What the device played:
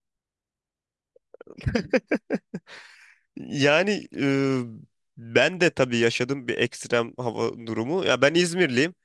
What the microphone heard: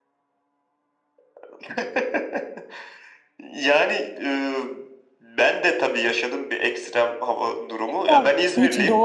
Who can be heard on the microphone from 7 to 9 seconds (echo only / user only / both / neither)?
both